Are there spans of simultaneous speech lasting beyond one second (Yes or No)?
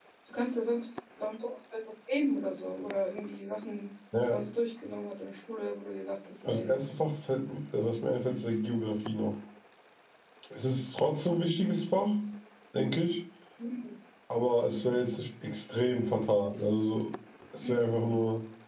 No